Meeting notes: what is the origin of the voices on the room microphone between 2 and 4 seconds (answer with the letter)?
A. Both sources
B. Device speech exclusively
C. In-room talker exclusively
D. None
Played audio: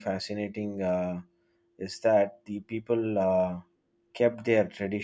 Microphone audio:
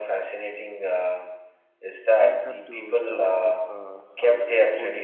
A